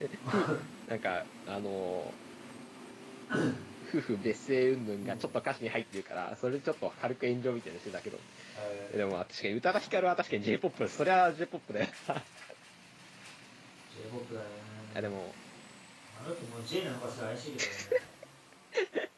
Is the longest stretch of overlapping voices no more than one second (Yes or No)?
Yes